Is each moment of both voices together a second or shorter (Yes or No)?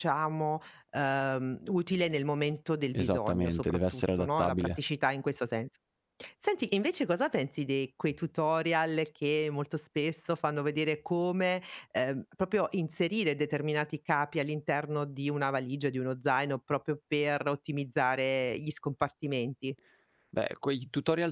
No